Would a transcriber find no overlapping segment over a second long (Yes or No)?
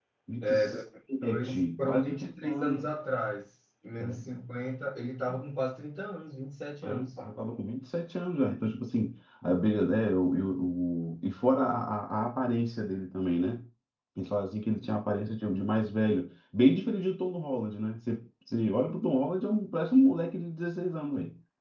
No